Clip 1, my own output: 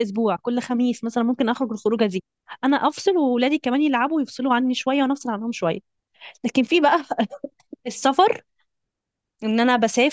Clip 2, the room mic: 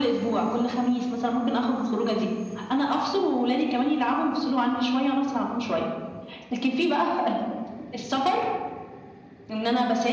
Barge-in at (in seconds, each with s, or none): none